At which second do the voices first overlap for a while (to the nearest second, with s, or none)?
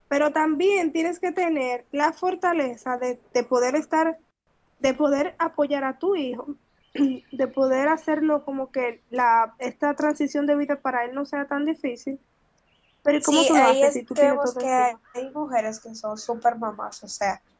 13 s